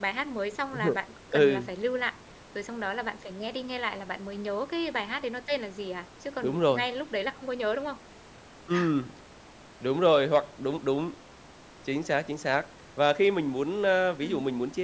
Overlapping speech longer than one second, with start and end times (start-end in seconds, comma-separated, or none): none